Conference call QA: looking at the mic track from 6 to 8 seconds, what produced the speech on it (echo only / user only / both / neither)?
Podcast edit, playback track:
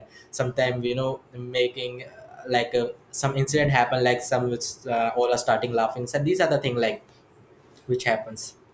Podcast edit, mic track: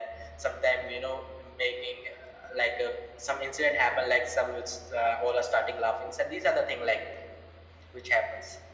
echo only